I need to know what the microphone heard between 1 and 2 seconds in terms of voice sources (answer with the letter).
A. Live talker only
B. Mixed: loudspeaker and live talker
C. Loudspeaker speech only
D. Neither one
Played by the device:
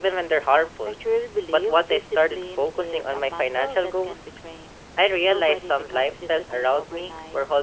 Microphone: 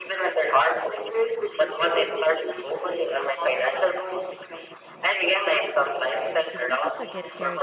C